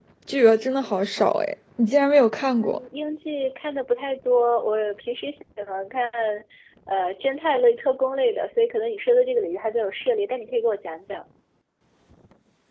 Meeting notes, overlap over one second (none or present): none